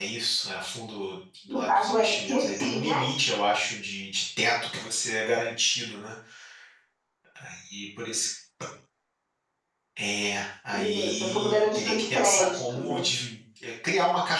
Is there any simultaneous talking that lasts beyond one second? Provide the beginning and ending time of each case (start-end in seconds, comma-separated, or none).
1.5-3.0, 11.0-13.0